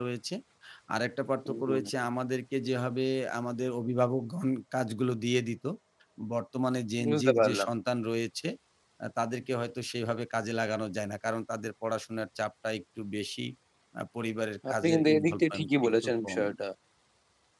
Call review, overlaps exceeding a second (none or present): present